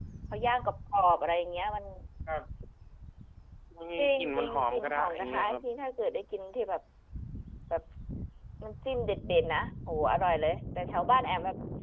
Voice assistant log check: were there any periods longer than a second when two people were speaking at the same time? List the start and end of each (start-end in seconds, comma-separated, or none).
4.0-5.6